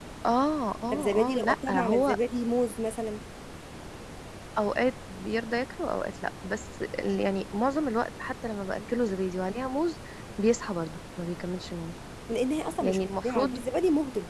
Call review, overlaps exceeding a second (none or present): present